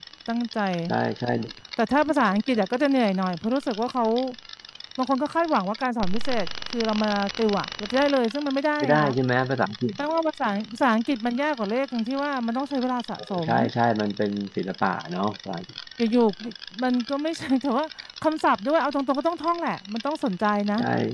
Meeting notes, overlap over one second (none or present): none